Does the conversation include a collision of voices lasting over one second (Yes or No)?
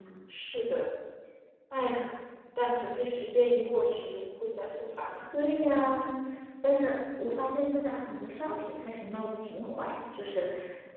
No